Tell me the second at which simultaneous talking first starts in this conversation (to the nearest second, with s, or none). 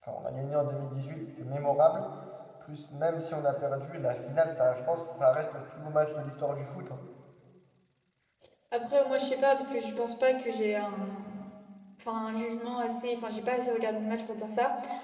none